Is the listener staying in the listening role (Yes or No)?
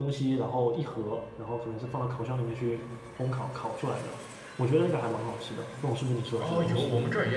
No